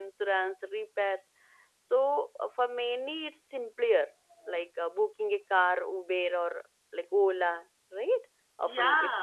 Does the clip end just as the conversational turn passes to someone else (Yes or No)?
Yes